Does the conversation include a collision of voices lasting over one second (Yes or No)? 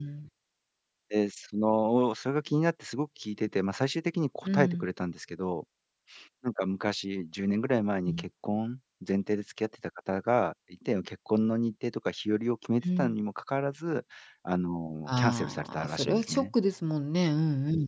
Yes